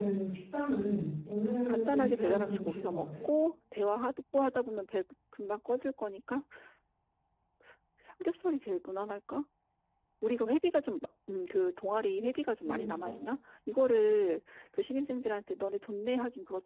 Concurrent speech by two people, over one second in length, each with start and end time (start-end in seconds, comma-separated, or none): 1.7-3.1